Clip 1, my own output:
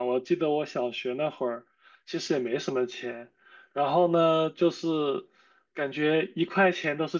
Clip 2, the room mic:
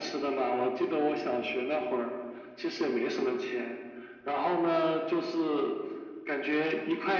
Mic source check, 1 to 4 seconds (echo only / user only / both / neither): echo only